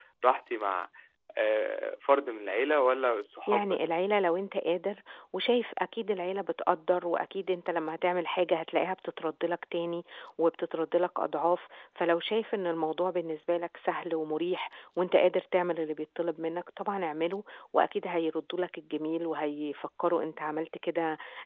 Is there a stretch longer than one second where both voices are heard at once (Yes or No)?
No